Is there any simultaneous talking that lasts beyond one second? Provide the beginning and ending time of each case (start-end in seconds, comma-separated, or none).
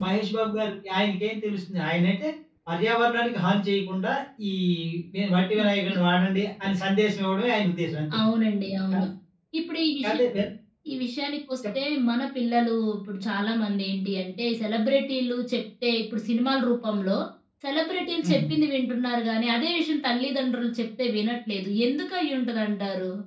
none